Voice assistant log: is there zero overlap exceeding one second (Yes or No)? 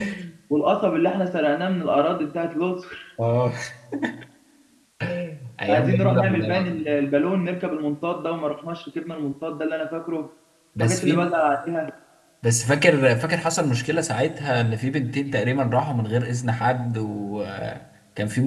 No